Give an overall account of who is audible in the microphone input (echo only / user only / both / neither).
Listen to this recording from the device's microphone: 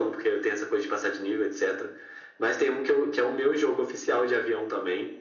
echo only